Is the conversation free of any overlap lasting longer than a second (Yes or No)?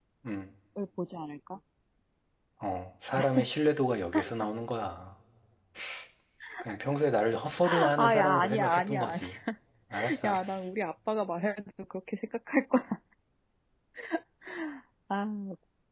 No